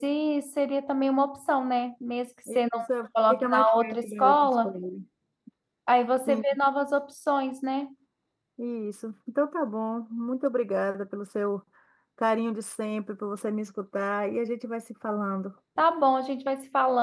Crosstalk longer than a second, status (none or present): present